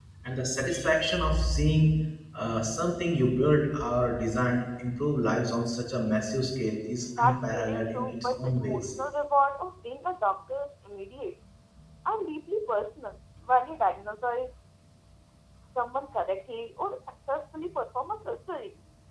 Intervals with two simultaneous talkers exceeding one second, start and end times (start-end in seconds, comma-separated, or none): 7.2-8.8